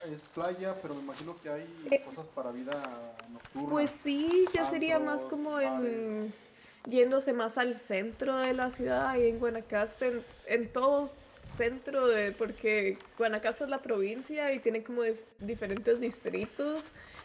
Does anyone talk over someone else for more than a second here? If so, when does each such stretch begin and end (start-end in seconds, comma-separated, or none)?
4.6-6.0